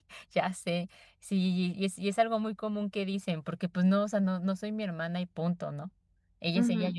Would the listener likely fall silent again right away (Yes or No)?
No